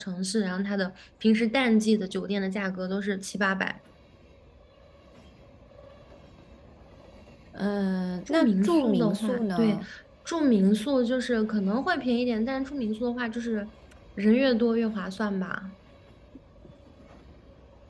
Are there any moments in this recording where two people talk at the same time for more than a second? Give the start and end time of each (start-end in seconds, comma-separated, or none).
8.3-9.8